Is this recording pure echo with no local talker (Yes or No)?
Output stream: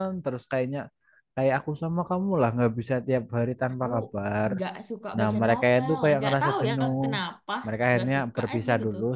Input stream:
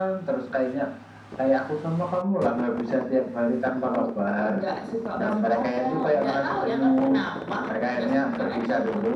Yes